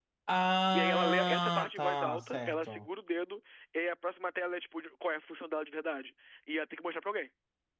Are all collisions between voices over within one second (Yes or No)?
No